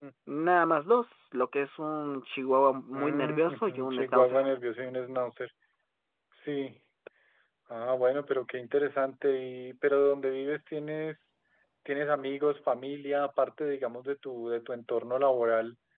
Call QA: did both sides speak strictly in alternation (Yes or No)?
No